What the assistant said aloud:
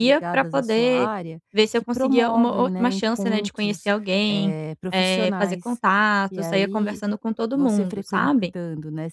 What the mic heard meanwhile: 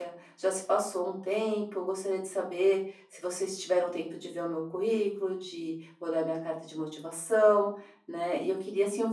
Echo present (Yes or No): No